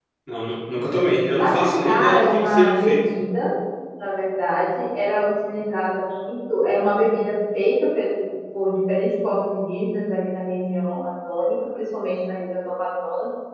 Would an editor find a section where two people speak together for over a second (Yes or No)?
Yes